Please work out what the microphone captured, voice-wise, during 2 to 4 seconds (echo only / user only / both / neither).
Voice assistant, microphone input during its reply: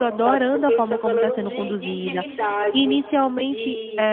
both